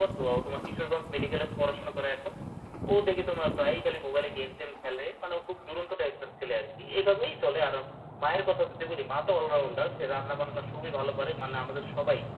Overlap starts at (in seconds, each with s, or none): none